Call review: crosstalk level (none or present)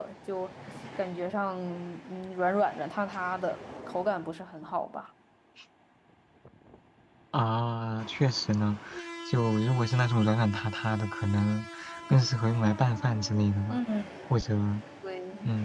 none